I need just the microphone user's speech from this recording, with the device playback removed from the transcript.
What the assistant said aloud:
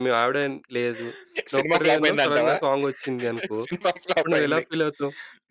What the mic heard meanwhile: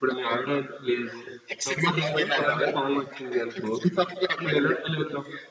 none

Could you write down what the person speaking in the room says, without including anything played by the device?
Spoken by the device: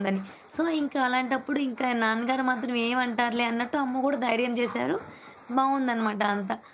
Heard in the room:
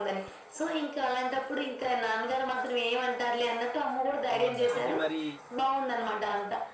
బావుంది. అది మరి

